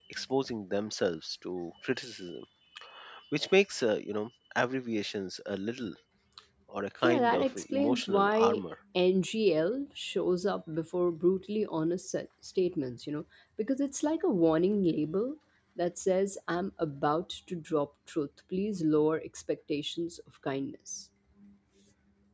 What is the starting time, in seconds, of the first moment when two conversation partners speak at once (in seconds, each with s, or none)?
7.0 s